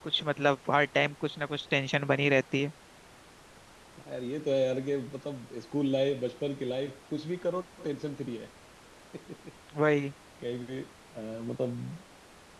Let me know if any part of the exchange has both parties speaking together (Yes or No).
No